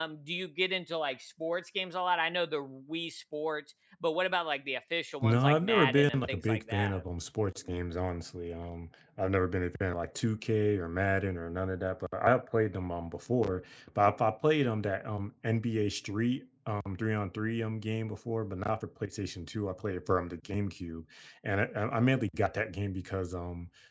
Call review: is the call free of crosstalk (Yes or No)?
No